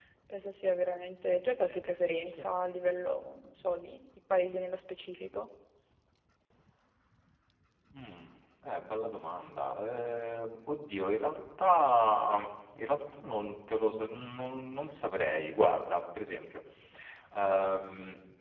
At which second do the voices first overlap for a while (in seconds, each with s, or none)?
none